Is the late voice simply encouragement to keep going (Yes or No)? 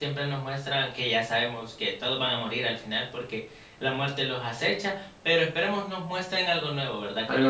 Yes